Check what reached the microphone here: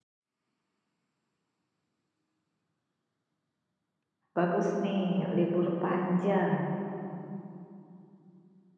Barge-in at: 4 s

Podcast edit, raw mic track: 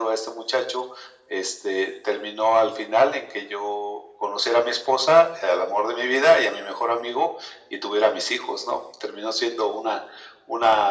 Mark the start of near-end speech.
none

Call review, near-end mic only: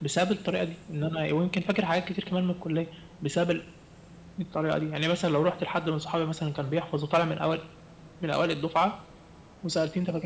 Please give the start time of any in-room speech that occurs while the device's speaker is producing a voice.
none

